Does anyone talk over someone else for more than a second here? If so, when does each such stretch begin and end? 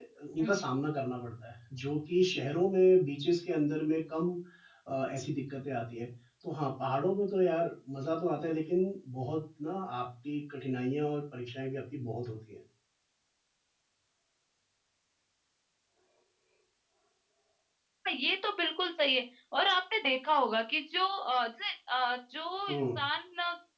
none

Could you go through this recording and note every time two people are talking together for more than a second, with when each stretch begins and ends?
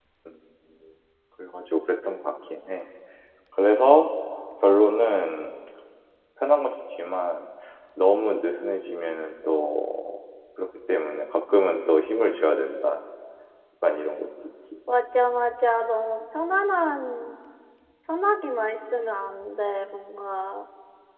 none

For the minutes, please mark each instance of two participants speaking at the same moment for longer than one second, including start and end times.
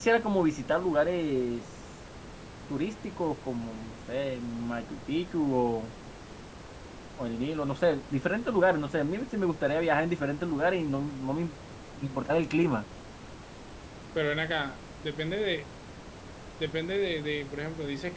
none

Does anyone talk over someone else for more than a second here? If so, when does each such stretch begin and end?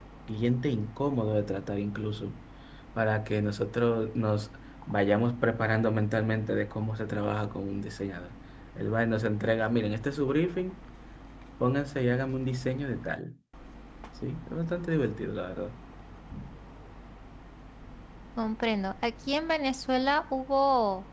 none

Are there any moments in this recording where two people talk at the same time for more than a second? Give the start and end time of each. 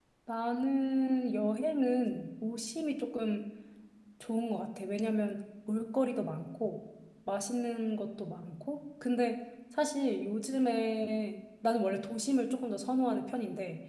none

